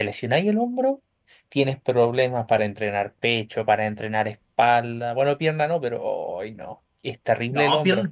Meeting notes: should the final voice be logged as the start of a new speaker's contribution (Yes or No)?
Yes